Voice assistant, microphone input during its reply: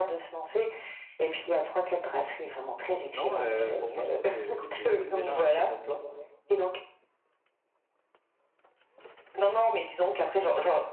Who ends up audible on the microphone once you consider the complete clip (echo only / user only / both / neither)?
both